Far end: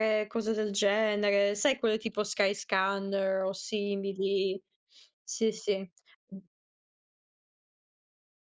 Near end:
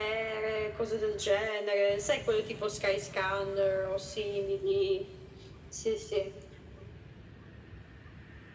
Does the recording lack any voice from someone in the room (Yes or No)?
Yes